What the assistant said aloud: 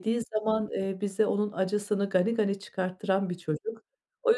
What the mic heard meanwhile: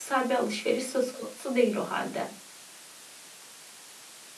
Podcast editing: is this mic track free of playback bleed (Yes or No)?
Yes